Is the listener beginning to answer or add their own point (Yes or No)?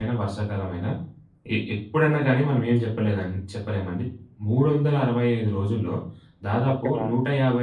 No